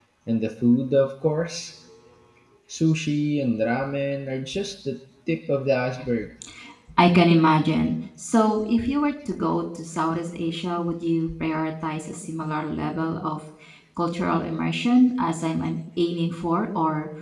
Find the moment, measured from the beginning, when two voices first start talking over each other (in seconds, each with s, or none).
none